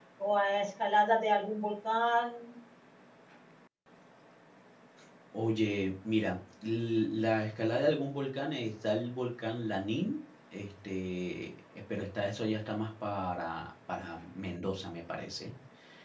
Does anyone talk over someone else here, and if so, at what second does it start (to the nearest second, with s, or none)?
none